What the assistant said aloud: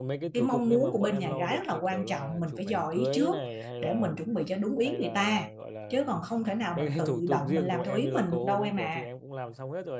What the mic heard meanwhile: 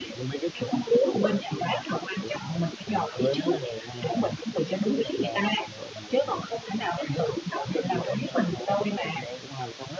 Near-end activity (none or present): none